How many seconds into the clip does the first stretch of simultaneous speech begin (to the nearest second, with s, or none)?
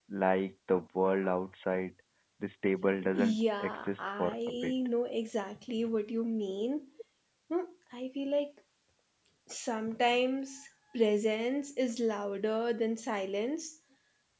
3 s